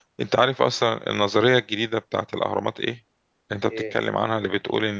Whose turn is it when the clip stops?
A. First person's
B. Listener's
A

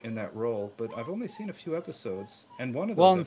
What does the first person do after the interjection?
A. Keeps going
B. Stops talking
A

